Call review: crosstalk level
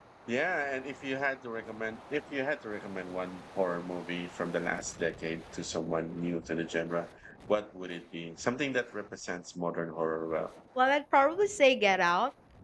none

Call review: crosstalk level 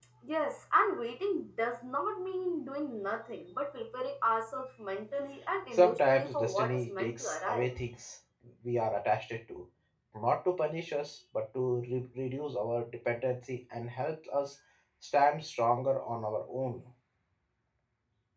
present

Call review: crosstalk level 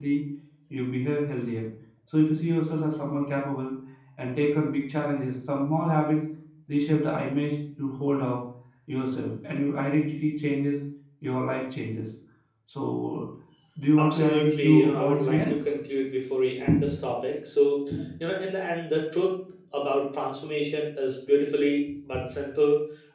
present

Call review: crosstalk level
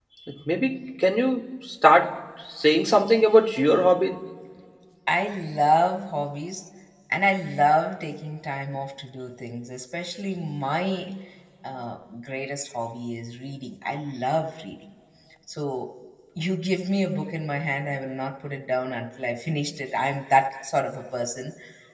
none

